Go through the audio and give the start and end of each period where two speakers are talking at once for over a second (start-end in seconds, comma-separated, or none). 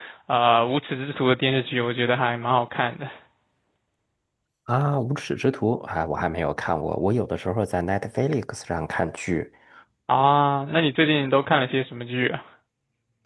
none